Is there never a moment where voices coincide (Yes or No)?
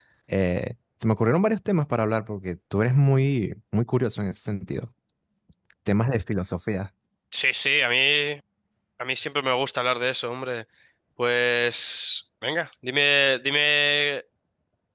Yes